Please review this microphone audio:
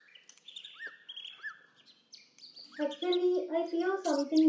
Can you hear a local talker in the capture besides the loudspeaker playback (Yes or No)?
Yes